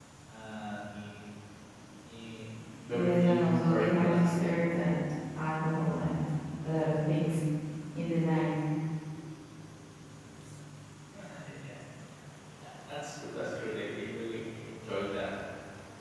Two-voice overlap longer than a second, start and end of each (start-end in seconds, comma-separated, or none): 2.9-4.2